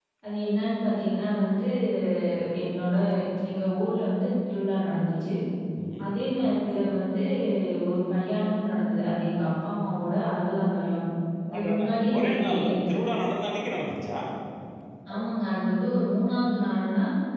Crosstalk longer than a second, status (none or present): present